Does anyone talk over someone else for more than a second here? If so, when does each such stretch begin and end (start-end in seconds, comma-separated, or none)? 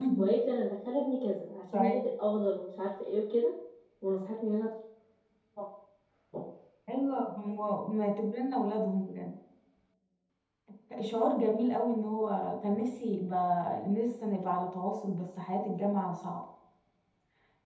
none